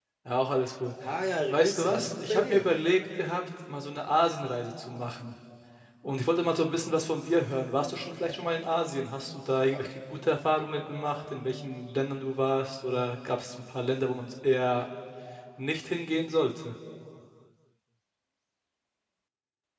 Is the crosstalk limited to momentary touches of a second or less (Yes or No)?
No